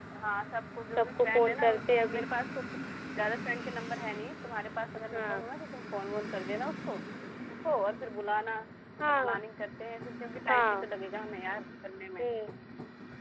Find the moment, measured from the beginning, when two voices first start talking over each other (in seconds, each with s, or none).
1.0 s